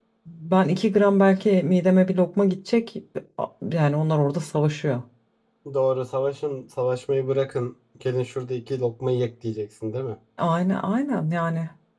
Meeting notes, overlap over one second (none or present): none